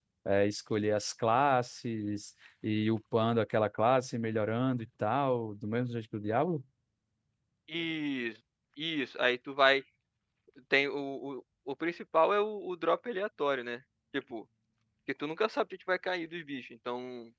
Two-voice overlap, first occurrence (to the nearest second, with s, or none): none